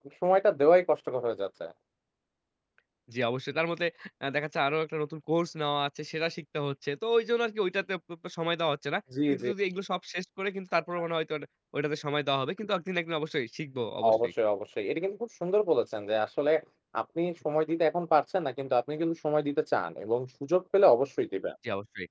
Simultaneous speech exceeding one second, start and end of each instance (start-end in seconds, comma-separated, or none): none